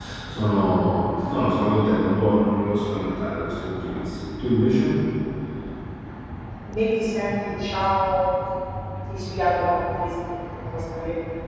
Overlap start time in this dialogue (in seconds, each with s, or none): none